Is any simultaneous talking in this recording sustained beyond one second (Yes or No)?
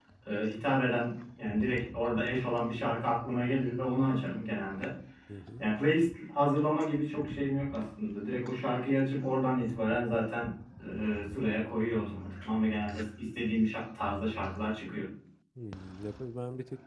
No